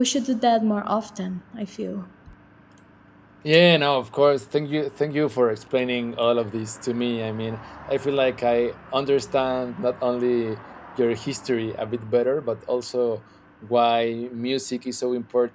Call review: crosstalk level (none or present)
none